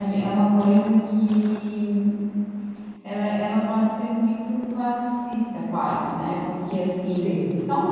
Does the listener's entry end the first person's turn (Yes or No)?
No